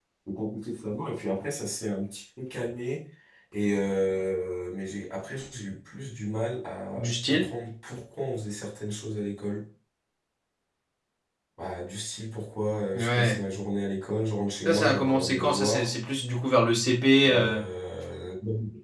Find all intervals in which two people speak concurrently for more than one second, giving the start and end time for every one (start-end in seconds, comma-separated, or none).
14.7-15.9